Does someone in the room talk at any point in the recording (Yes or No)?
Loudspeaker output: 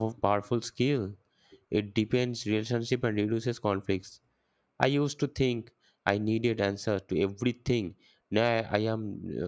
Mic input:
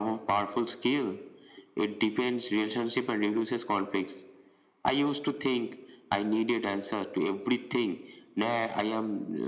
No